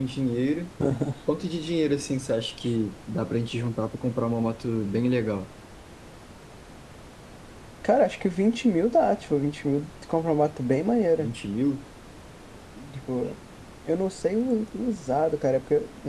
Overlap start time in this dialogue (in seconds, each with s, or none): none